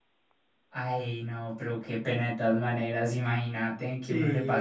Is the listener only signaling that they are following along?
Yes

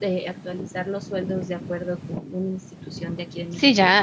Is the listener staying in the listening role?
No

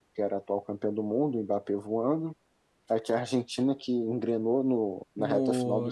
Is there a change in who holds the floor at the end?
Yes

